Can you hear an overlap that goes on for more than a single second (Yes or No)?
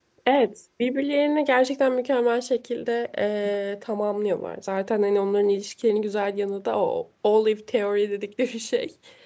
No